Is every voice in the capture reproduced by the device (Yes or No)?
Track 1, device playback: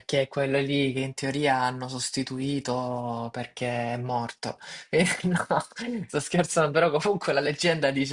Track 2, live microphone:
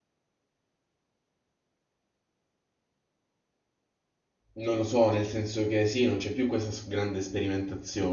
No